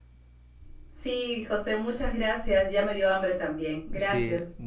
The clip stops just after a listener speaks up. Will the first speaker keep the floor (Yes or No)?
No